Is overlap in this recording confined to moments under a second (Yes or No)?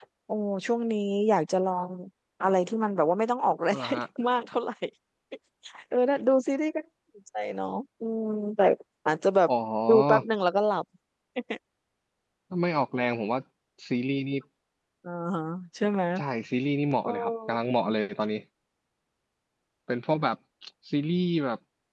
Yes